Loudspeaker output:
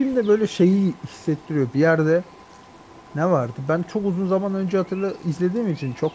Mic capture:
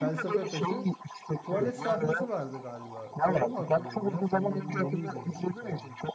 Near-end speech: present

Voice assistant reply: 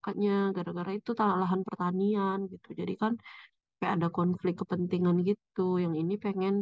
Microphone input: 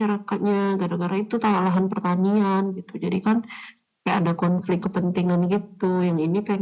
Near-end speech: none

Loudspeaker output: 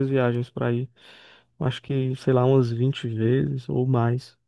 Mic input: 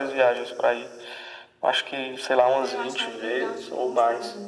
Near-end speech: present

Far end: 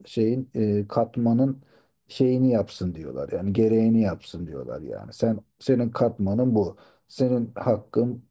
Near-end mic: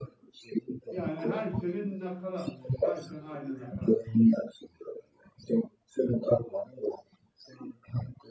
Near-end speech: present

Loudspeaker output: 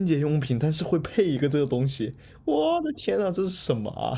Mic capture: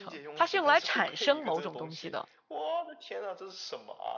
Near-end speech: present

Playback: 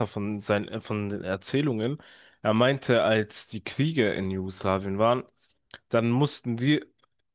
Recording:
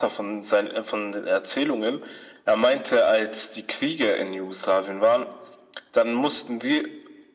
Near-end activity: none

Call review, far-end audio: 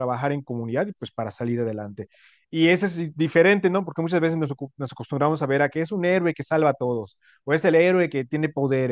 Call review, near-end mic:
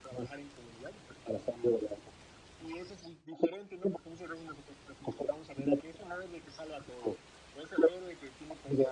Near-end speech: none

